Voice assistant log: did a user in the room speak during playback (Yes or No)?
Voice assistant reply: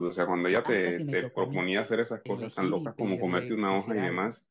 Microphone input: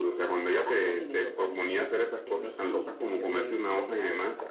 No